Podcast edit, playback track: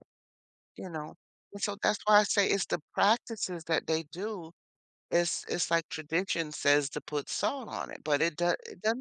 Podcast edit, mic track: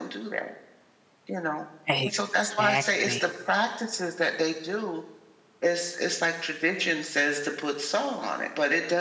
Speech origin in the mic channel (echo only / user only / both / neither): both